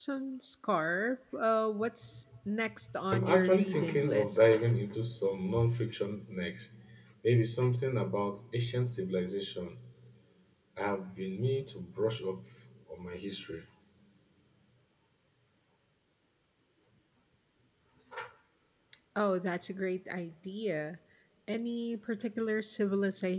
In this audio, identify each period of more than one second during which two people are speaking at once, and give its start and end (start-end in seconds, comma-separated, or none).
3.1-4.4